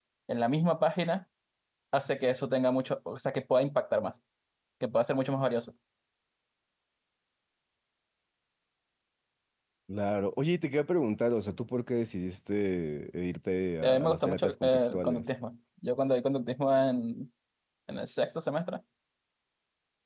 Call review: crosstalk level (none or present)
present